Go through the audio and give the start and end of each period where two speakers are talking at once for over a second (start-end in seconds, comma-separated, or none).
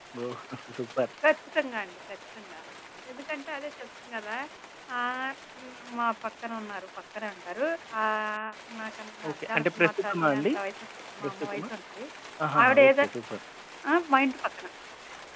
9.3-10.5